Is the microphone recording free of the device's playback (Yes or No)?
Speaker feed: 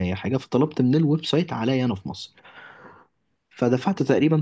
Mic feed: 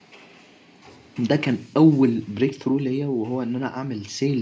Yes